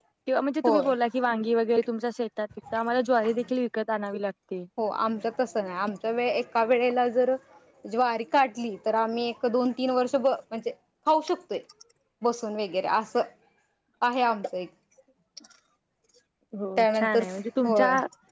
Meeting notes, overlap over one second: none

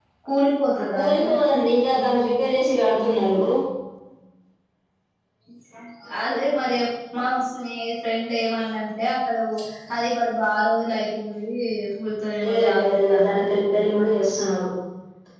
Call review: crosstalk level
present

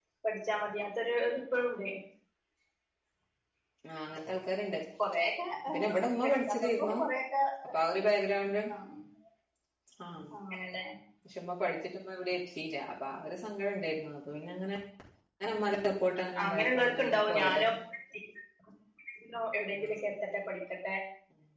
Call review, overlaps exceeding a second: present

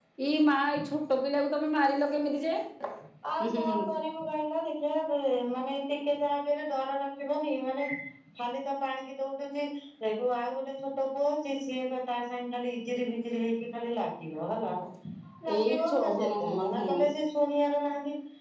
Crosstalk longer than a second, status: present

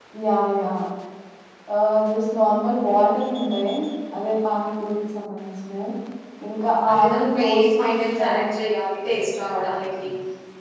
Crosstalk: present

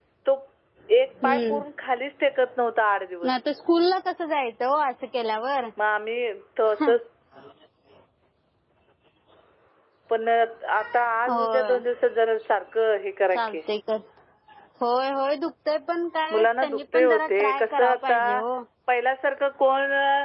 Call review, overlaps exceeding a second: present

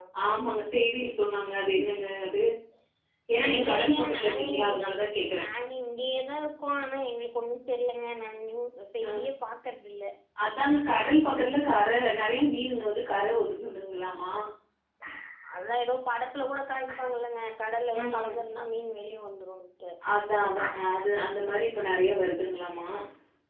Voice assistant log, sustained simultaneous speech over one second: present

